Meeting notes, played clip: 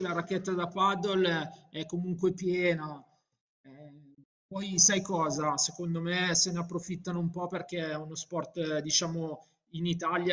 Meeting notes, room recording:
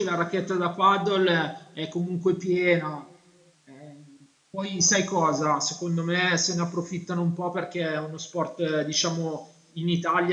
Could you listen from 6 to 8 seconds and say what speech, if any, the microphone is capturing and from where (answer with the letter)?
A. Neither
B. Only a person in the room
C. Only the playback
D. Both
C